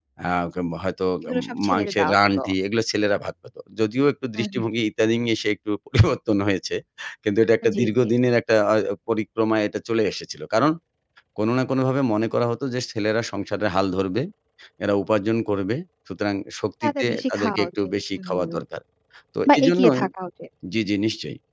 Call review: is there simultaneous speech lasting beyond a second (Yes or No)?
Yes